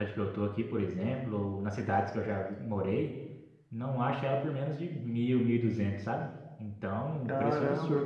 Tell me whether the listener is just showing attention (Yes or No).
No